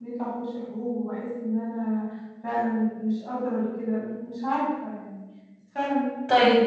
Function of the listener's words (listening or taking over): taking over